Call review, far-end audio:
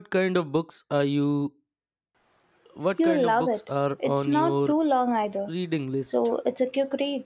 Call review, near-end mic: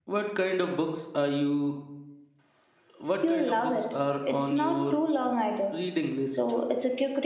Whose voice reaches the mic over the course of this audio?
echo only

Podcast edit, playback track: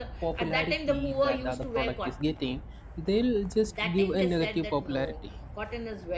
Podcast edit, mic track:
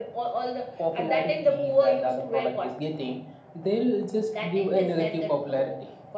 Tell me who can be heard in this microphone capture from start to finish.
echo only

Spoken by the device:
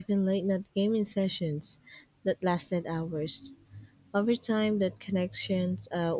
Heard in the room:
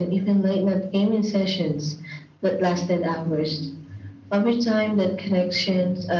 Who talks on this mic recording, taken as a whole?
echo only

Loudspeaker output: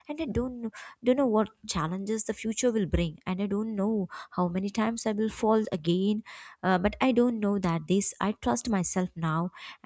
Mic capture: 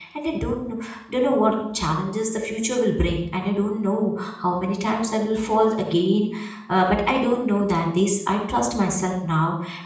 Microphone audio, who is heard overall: echo only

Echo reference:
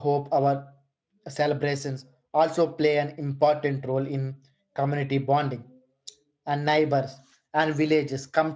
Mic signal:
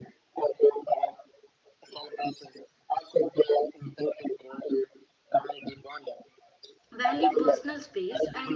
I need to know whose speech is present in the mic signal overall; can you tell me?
both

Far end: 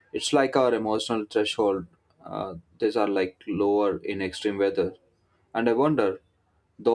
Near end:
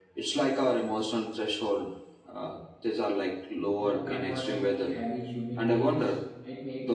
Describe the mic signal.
both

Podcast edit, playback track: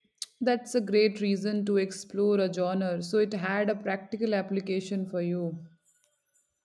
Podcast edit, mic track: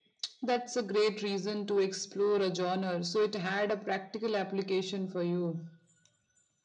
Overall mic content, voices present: echo only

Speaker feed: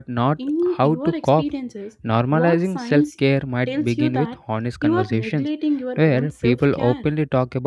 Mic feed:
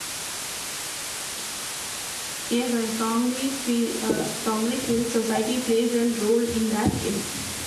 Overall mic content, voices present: user only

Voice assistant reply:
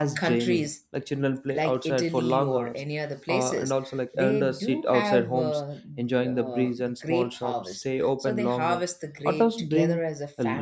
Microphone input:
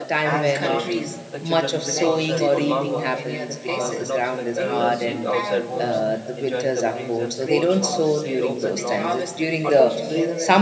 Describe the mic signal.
both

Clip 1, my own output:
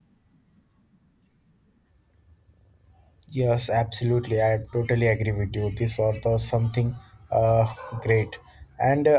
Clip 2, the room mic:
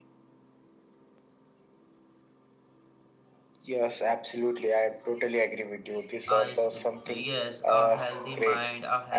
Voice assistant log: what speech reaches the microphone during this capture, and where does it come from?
both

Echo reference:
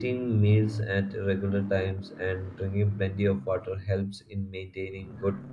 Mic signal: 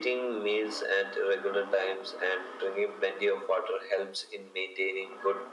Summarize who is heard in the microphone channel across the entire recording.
echo only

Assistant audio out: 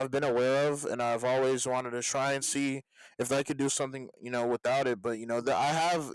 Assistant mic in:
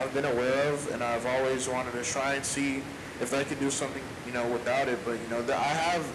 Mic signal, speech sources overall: echo only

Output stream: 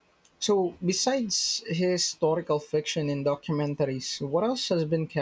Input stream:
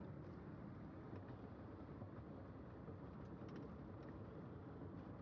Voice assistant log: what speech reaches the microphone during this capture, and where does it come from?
neither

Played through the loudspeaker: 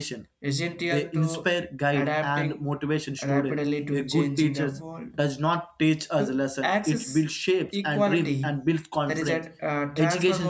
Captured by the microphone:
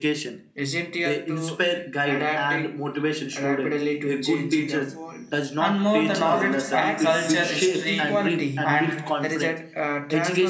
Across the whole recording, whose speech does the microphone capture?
both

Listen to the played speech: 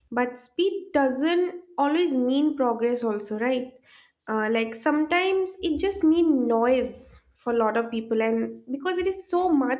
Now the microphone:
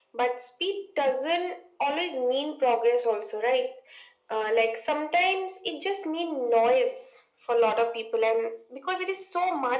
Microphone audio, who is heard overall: echo only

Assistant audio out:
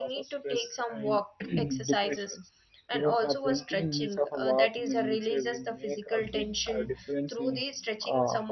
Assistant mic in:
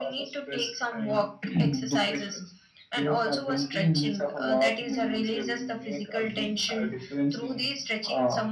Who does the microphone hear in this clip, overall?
echo only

